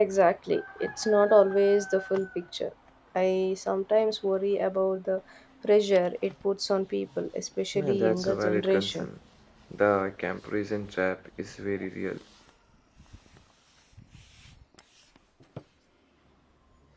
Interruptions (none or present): present